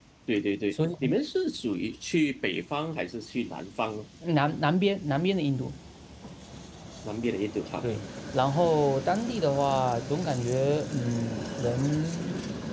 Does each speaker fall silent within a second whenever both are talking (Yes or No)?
Yes